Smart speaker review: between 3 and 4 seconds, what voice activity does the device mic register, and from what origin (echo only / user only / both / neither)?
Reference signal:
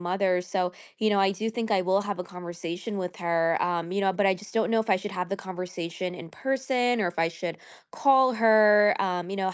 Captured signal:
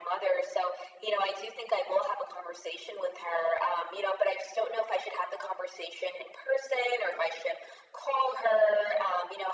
echo only